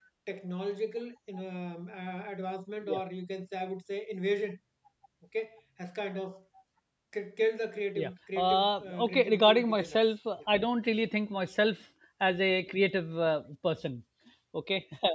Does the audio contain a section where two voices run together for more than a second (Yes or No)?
Yes